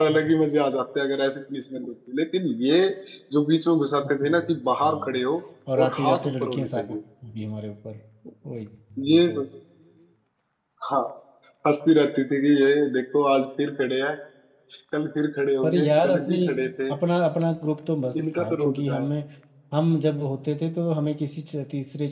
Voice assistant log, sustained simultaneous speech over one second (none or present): present